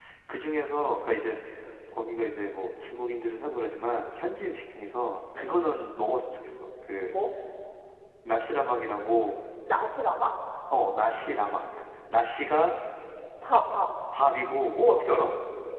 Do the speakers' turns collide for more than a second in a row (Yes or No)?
No